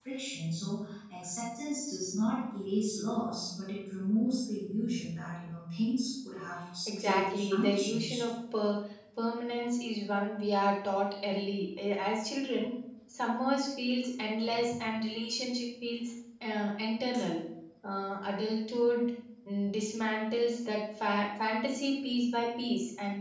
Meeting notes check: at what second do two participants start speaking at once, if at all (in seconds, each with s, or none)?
6.9 s